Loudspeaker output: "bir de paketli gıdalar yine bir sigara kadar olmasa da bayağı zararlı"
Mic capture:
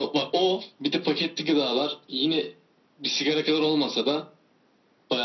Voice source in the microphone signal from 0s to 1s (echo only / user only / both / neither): echo only